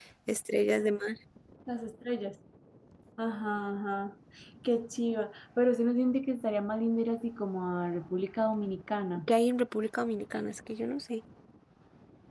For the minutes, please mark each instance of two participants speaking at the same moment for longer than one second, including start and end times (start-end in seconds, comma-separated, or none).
none